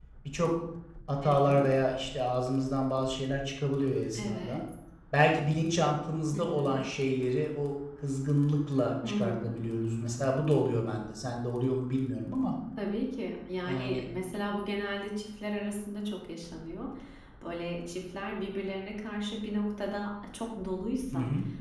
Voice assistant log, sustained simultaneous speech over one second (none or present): none